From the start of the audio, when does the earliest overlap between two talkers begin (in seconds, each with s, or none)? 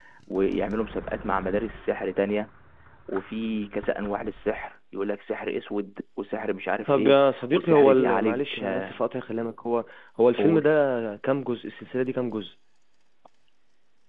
6.9 s